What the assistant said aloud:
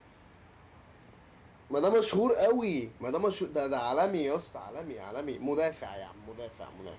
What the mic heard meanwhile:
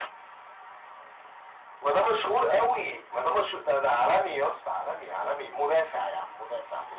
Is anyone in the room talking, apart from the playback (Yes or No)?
No